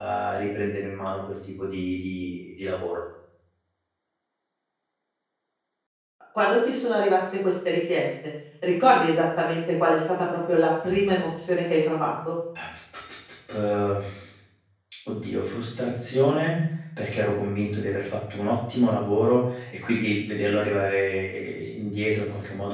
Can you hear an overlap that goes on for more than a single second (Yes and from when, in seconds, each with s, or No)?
No